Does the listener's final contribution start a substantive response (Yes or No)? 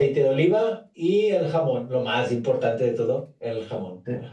Yes